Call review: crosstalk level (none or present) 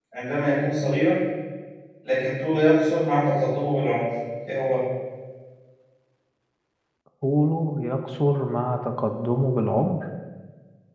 none